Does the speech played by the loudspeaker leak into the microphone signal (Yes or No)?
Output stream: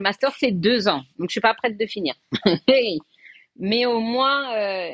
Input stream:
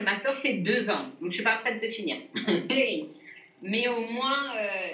Yes